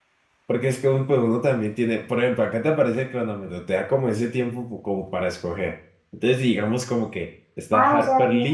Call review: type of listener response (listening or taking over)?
taking over